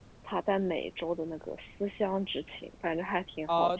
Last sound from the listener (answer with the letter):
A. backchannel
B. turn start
B